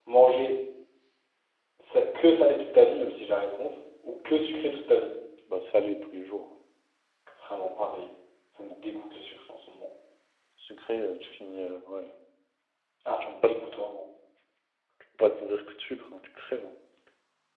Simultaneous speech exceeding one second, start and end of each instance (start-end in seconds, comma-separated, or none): none